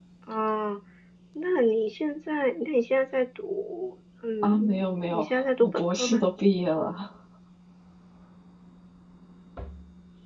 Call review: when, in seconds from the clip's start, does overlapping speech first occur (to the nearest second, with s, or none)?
4 s